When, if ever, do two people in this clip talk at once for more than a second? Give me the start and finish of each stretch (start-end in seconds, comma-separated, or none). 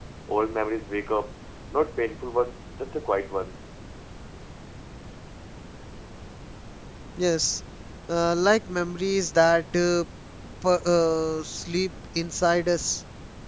none